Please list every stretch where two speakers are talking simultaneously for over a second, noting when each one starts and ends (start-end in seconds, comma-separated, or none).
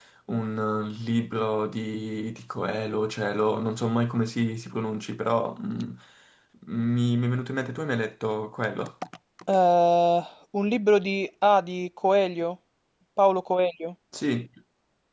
none